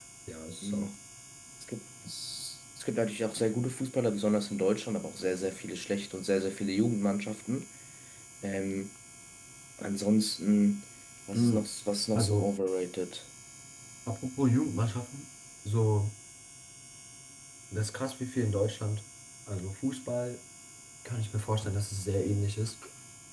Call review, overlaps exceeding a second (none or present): none